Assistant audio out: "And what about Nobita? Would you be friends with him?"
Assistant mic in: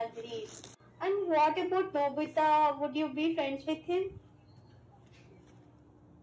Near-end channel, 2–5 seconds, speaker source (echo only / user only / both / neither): echo only